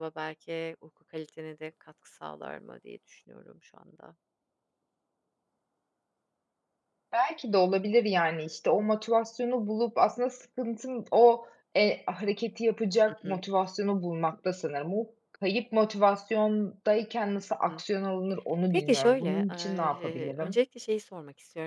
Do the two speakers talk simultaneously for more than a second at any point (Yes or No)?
Yes